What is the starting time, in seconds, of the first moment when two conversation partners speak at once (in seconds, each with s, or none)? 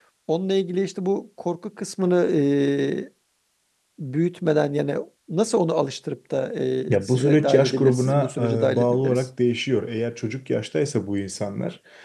6.9 s